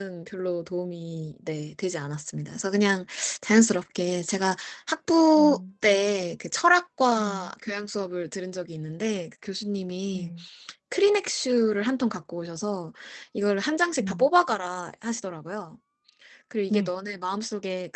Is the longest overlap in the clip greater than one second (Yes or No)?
No